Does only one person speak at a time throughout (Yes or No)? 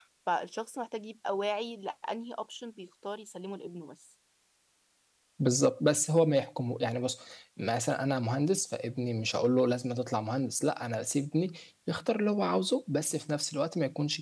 Yes